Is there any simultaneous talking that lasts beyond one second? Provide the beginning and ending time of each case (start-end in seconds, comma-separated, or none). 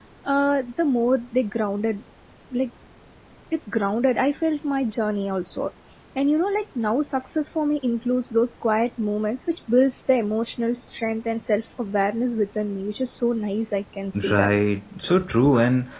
none